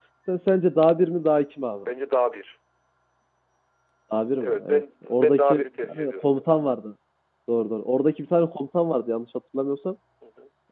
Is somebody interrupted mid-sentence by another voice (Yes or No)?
Yes